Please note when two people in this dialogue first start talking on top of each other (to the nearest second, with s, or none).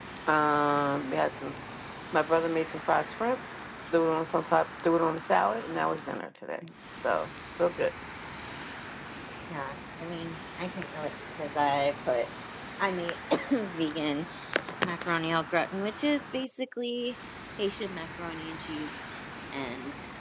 none